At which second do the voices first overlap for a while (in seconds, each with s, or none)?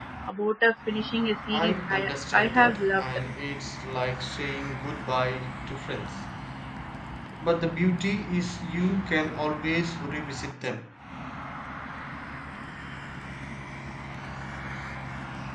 1.5 s